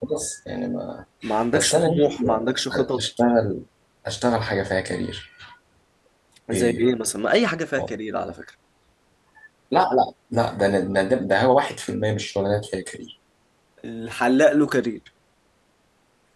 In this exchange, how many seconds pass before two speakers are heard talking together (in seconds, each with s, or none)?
1.5 s